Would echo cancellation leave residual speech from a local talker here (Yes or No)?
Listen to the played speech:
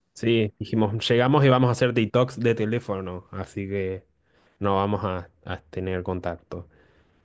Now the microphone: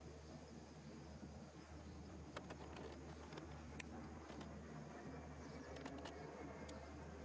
No